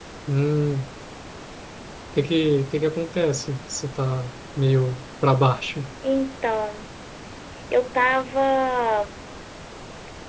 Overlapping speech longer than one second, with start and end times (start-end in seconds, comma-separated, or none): none